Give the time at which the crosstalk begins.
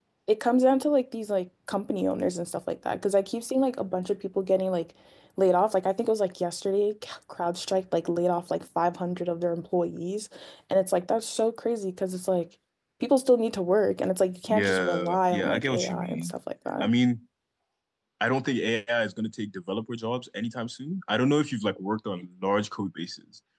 14.5 s

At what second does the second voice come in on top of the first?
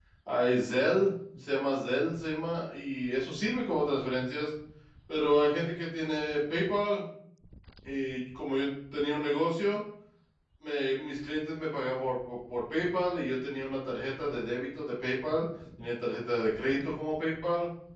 none

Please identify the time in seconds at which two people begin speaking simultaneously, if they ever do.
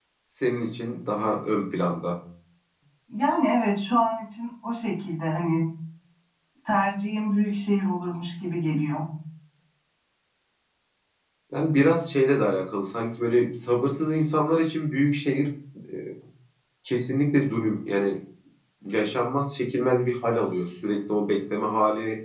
none

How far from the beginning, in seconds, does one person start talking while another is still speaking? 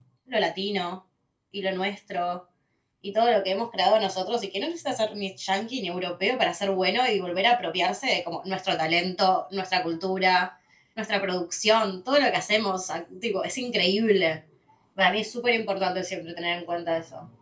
none

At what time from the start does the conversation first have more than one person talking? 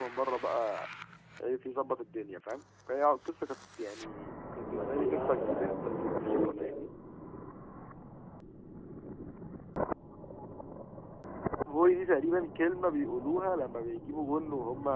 4.5 s

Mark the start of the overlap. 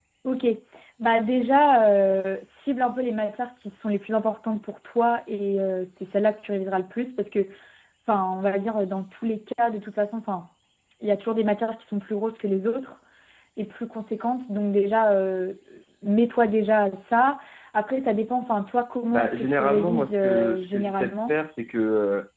19.1 s

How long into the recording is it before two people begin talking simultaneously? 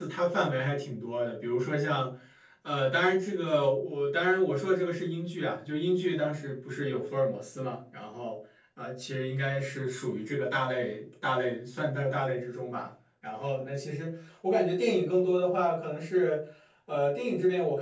none

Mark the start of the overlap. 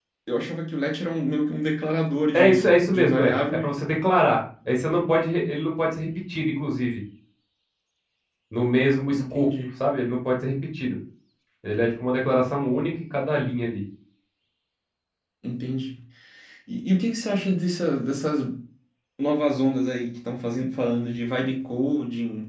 2.3 s

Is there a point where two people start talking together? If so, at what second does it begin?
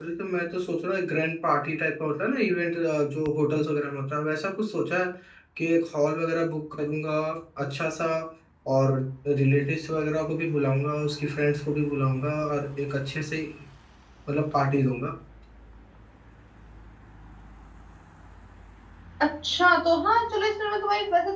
none

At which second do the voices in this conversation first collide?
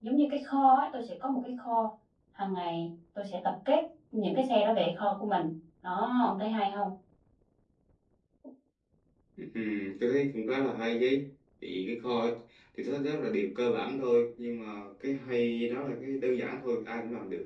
none

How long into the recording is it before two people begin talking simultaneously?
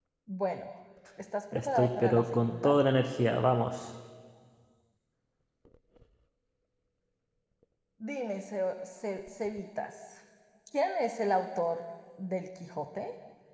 1.5 s

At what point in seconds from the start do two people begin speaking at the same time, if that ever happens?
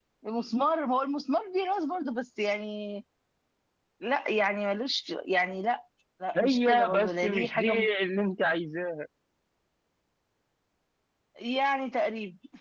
6.3 s

